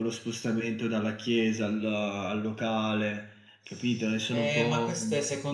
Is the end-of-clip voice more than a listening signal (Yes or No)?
Yes